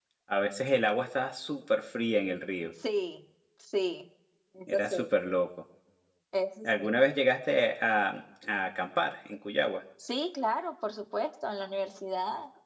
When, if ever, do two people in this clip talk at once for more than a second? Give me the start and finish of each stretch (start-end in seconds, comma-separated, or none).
none